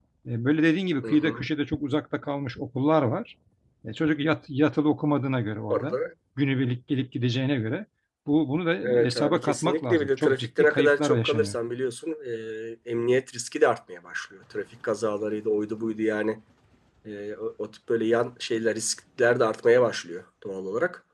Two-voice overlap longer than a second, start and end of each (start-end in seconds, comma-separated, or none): 8.8-11.6